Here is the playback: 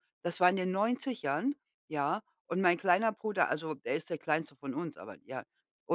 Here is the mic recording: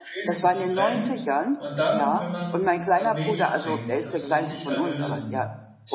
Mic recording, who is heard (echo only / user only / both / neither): both